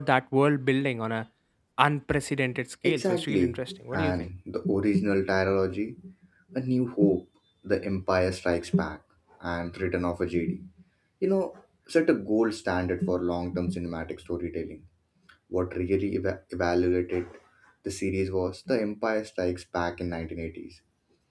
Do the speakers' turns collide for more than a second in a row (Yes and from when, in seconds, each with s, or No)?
Yes, from 2.8 s